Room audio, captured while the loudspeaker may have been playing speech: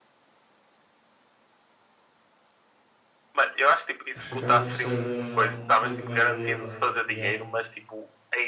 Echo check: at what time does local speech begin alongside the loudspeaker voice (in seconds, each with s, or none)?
4.1 s